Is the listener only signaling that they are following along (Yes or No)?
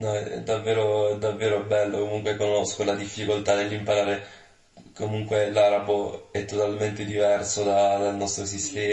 Yes